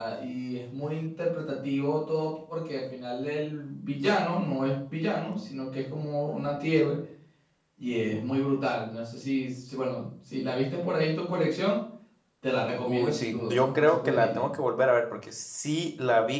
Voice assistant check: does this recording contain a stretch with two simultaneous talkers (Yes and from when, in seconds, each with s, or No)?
Yes, from 12.8 s